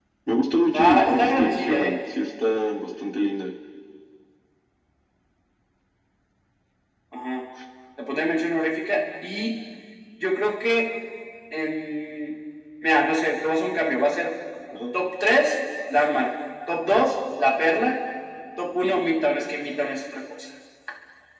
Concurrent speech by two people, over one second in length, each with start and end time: 0.7-2.0

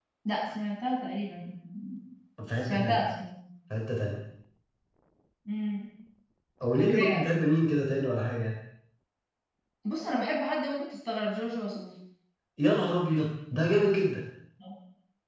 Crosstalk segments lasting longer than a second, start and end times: none

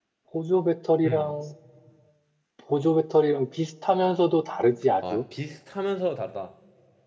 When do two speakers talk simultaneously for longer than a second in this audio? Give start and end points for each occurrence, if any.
none

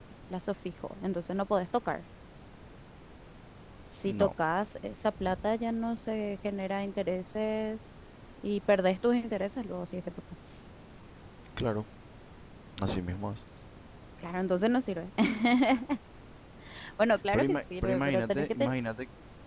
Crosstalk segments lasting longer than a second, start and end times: 17.3-18.7

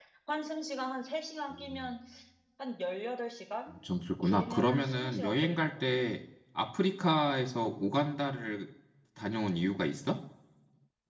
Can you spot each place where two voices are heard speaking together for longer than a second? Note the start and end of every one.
4.2-5.8

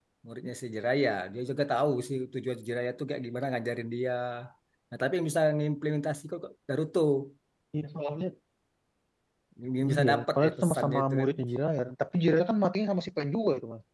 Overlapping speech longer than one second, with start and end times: 9.9-11.3

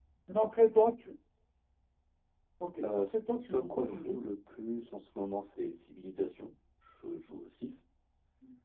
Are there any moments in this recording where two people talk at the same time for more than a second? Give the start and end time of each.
2.8-4.2

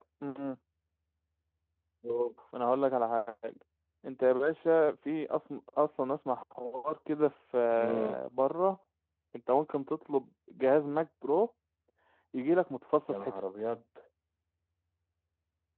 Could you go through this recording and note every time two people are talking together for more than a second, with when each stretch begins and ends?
none

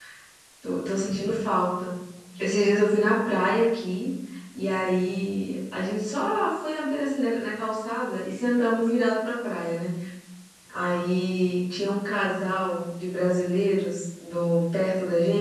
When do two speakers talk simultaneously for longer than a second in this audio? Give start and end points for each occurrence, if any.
none

